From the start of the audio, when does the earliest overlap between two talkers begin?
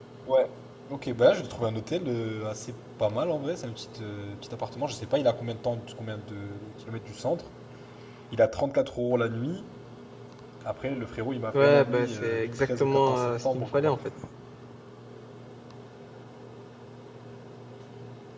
11.5 s

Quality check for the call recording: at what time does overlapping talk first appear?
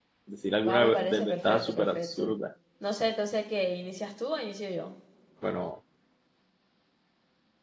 0.7 s

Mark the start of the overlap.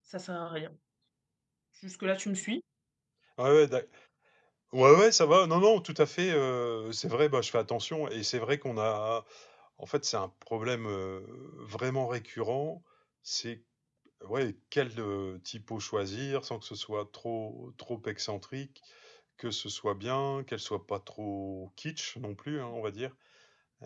none

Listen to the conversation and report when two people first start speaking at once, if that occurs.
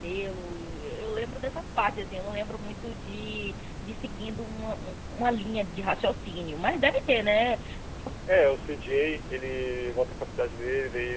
none

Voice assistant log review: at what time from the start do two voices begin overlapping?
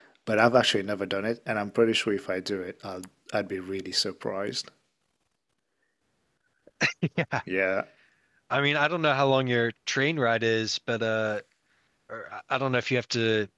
none

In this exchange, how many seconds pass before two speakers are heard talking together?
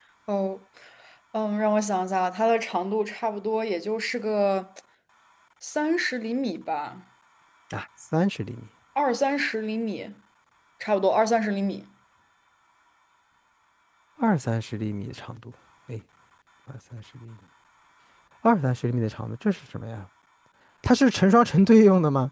none

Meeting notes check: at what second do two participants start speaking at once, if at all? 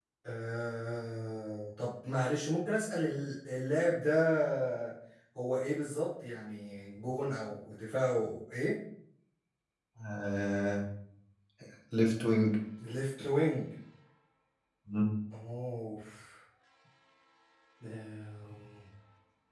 none

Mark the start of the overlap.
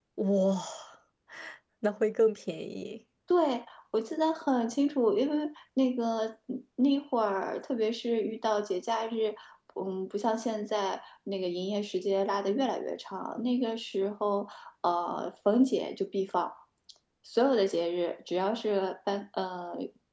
none

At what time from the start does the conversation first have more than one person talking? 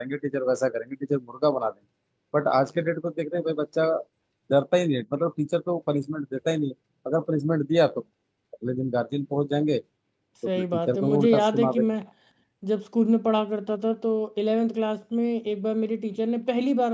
10.6 s

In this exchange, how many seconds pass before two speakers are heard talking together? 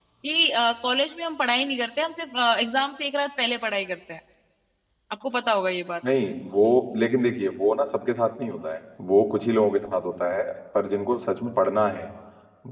none

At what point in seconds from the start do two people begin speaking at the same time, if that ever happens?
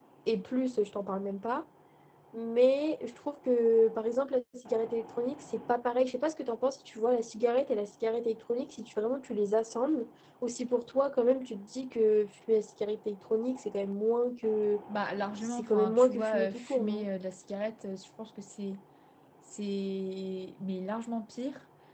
15.4 s

